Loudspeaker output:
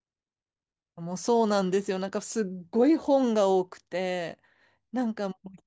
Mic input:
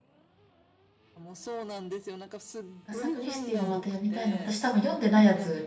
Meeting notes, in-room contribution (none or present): present